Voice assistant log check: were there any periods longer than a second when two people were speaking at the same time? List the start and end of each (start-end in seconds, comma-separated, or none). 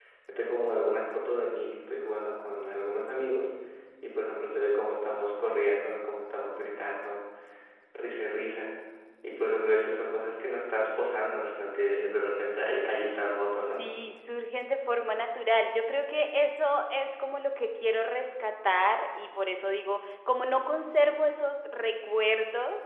none